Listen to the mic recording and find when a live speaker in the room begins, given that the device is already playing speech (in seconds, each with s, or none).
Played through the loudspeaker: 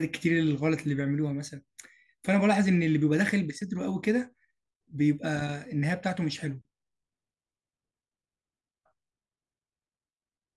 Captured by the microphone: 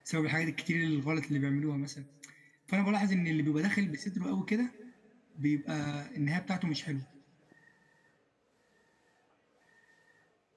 none